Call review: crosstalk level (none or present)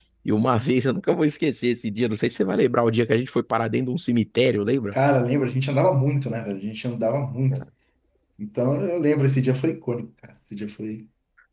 none